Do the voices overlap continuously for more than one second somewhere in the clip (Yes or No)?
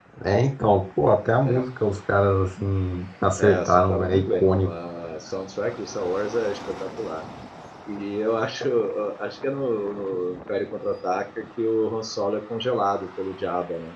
Yes